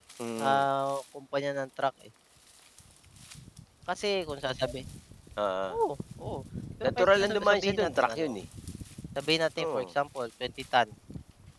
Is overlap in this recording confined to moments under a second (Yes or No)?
No